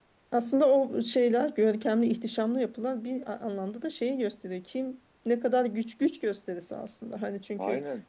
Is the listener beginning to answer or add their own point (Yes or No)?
No